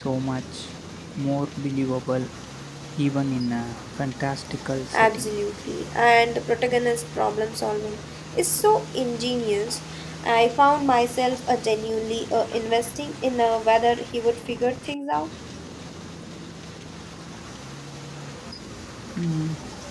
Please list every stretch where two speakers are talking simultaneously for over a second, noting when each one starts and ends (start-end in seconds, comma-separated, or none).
none